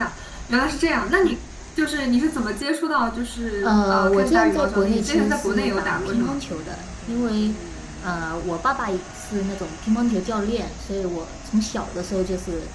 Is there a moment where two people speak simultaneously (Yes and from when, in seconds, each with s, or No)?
Yes, from 3.6 s